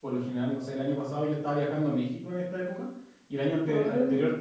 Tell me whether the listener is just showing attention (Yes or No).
Yes